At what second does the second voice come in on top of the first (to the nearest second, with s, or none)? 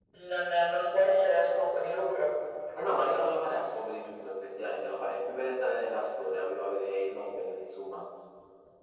none